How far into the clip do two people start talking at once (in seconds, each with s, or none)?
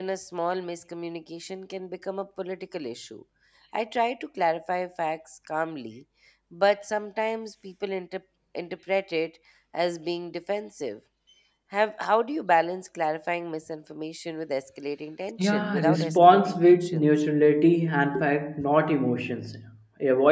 15.4 s